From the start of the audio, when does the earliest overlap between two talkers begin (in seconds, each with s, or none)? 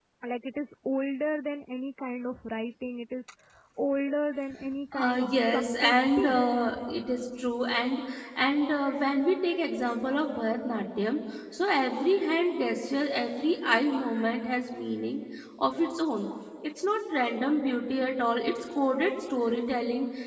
4.9 s